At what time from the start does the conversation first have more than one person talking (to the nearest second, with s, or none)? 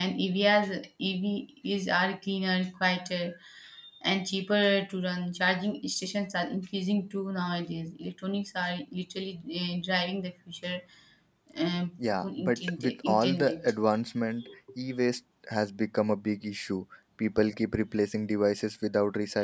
12 s